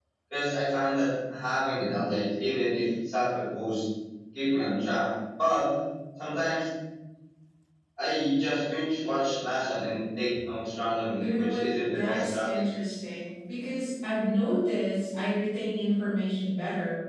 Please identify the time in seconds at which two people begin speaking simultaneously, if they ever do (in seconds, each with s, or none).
11.2 s